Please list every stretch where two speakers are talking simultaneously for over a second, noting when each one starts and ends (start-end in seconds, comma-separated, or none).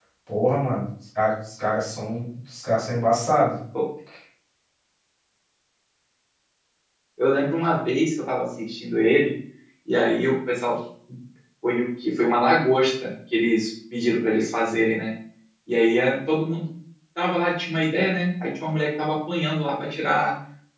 none